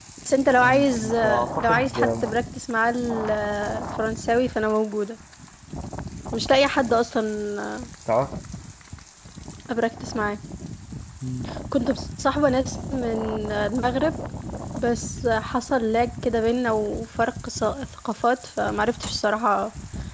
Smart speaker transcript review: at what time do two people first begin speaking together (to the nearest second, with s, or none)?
1 s